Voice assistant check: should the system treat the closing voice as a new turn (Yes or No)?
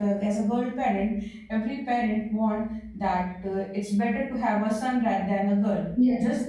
No